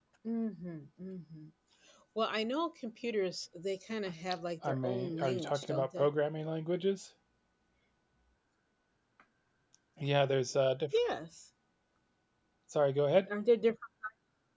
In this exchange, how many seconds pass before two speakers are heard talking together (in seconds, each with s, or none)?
4.6 s